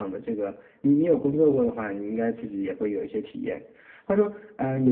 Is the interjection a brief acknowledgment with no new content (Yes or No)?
Yes